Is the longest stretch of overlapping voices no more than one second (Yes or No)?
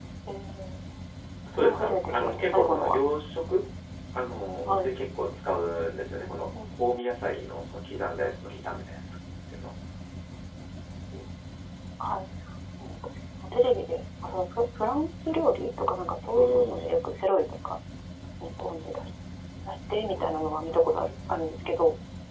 No